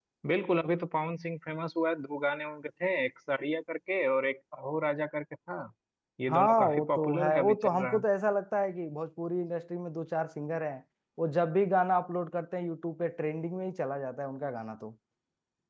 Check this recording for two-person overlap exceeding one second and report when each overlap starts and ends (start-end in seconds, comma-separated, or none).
6.3-8.0